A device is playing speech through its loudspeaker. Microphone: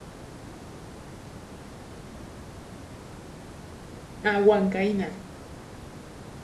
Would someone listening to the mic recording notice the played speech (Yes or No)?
No